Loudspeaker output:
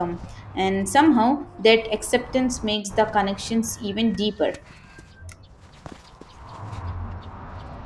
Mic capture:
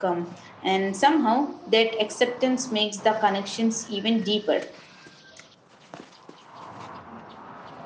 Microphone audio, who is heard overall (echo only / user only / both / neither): echo only